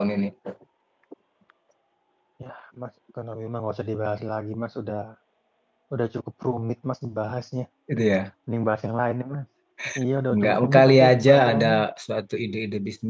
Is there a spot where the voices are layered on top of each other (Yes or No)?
Yes